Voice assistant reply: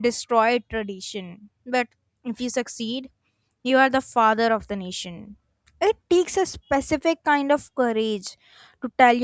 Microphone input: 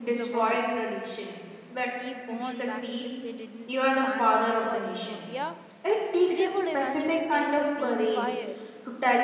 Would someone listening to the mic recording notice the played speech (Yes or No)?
Yes